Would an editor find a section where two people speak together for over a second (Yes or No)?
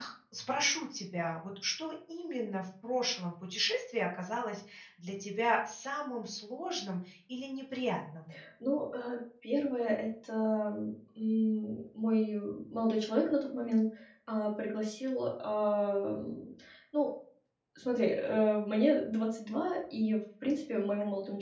No